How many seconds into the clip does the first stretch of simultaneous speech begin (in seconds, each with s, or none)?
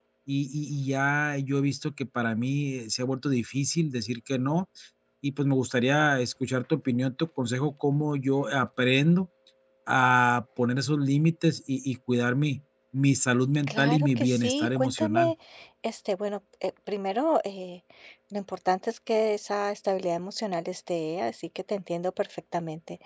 13.7 s